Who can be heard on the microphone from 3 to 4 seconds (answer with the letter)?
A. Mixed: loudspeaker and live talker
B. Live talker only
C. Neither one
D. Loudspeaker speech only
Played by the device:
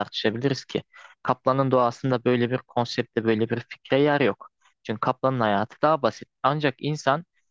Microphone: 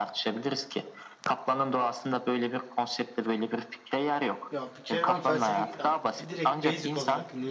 D